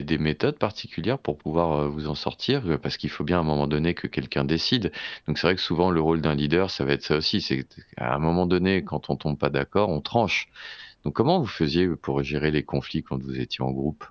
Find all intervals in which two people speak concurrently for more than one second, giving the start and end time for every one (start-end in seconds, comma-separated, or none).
none